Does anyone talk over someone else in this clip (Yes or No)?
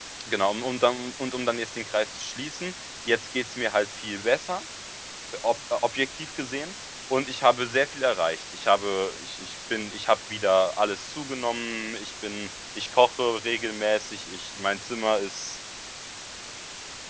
No